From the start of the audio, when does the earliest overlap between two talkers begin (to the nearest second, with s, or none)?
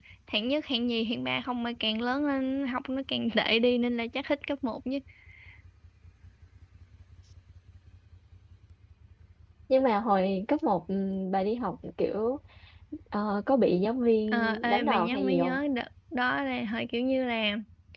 14 s